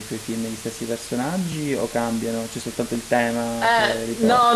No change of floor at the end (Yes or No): No